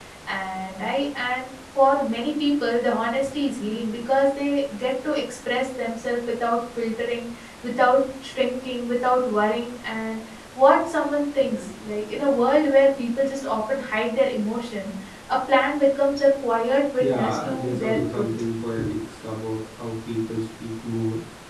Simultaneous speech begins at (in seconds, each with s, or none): 17.0 s